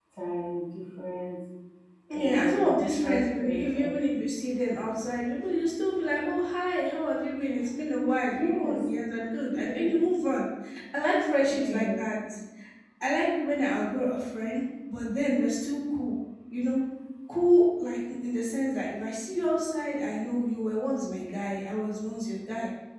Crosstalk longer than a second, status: present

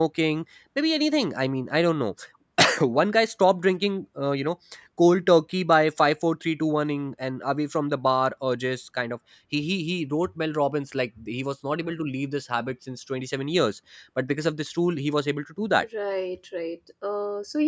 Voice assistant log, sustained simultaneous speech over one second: none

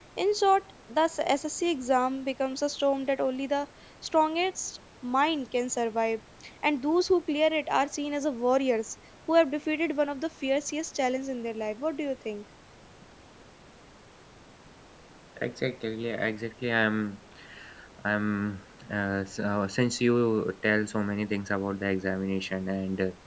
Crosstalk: none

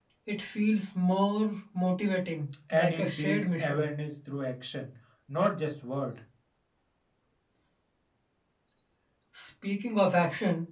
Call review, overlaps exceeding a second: present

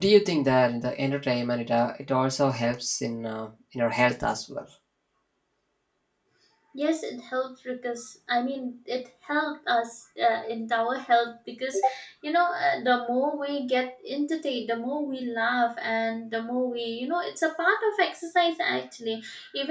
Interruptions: none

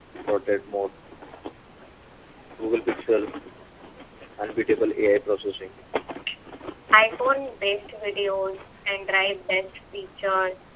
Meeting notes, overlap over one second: none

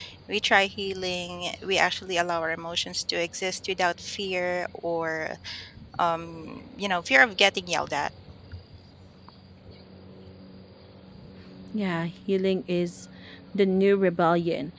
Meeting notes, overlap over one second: none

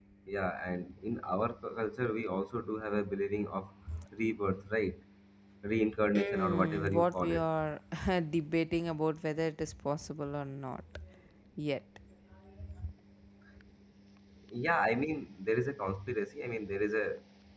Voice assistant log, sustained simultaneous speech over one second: present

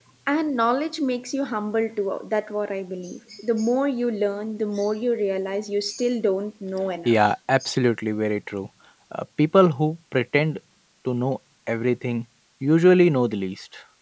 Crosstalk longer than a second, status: none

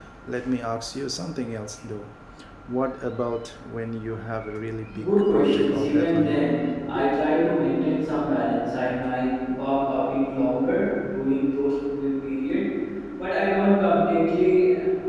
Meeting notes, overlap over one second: present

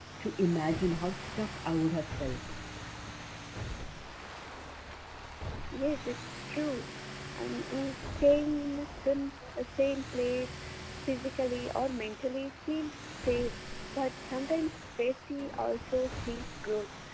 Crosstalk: none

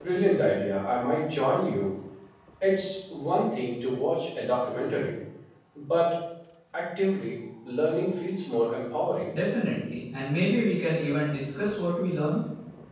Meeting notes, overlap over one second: none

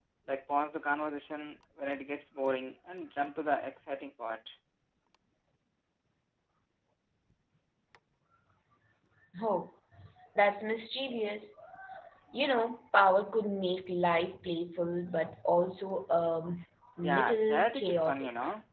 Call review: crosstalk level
present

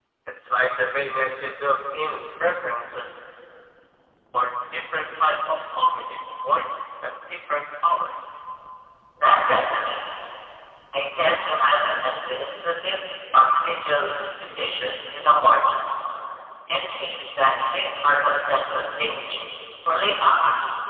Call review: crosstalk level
none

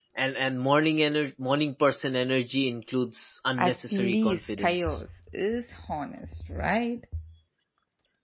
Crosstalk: present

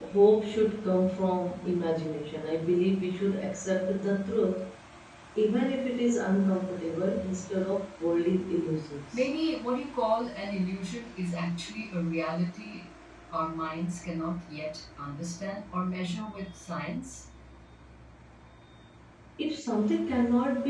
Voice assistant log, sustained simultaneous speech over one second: none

